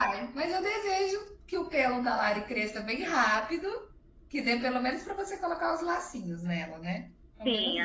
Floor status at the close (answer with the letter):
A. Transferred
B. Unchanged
A